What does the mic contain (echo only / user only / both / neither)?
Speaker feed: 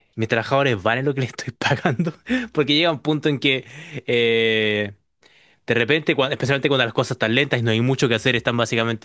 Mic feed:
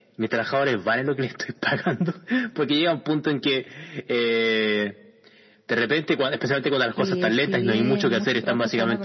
both